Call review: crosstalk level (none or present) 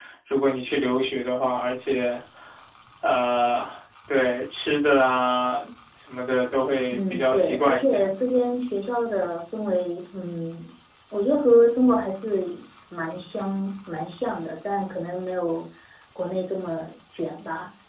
present